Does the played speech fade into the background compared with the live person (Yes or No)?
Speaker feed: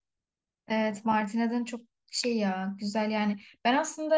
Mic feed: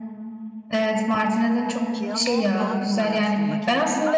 No